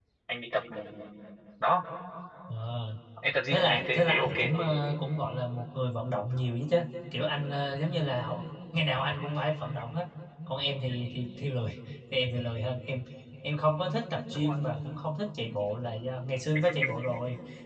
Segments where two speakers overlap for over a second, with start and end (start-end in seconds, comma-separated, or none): 3.5-4.8